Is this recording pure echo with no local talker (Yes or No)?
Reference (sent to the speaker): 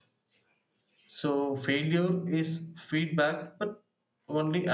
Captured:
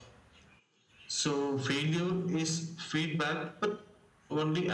Yes